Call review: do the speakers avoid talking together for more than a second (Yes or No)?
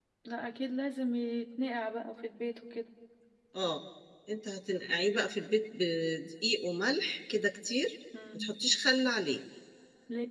Yes